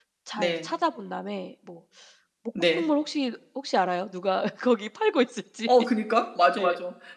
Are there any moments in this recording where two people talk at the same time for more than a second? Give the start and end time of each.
none

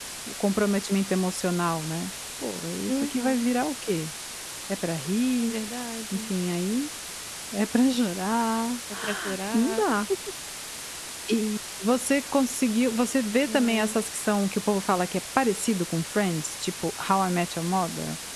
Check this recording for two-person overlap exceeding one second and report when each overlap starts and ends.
none

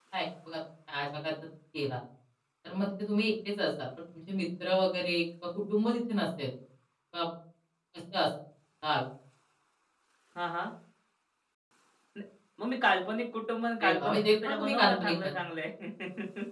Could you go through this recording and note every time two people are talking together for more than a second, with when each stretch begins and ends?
13.8-15.3

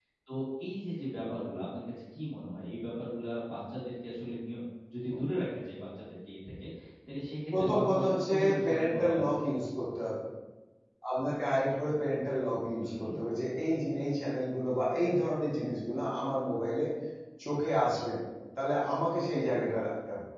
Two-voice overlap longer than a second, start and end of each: 7.6-9.4

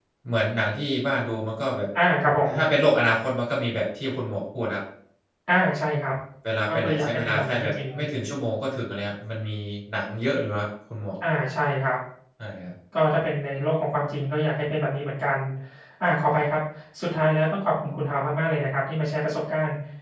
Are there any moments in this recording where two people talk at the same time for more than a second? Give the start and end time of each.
6.7-8.0

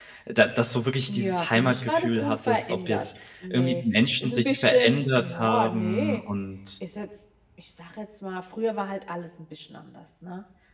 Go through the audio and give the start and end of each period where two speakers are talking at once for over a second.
1.1-3.0, 4.2-6.2

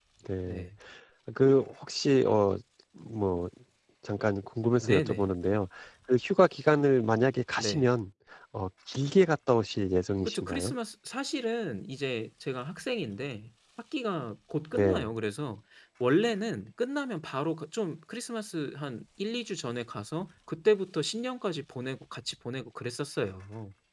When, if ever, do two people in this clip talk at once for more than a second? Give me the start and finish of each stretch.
none

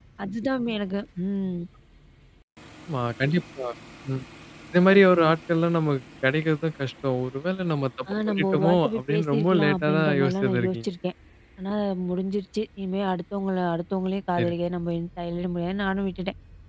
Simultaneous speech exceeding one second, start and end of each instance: 8.3-10.8

